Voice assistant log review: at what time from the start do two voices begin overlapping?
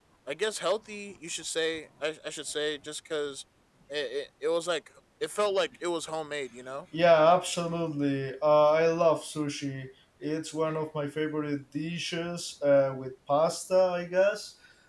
none

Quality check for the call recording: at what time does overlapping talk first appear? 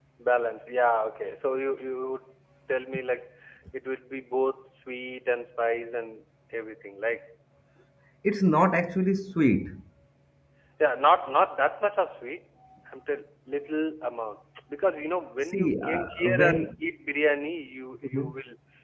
15.5 s

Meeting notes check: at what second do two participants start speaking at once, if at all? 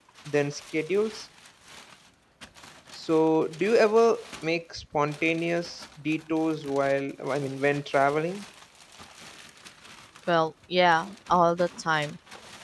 none

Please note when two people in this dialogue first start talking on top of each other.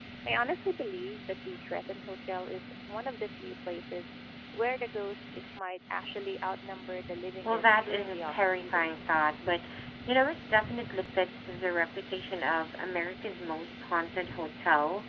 7.4 s

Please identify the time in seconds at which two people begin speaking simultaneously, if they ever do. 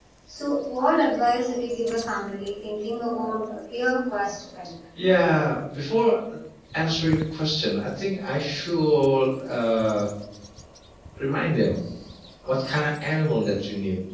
none

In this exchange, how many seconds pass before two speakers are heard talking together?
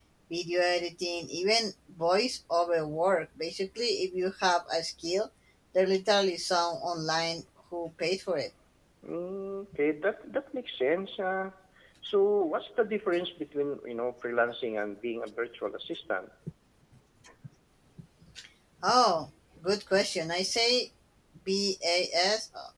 none

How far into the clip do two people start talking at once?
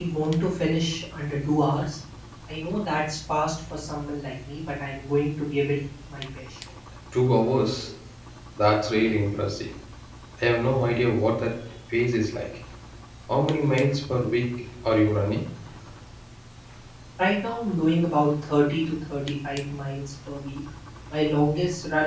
none

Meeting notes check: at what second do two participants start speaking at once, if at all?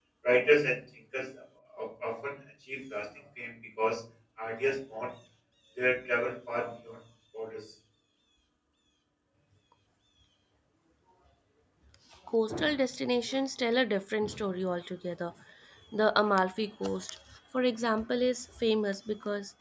none

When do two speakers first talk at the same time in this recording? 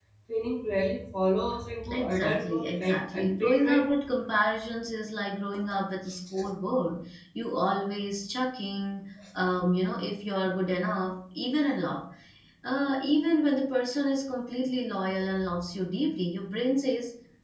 1.9 s

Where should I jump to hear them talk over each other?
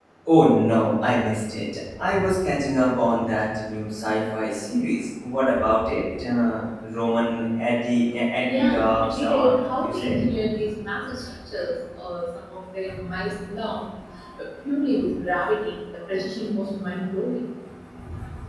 8.4 s

